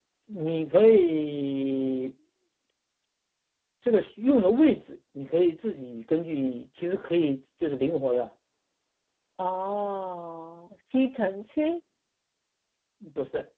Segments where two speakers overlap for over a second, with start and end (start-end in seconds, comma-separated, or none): none